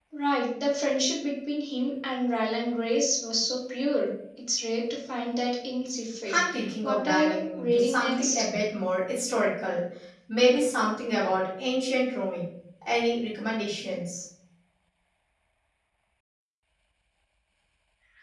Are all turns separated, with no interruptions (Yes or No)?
No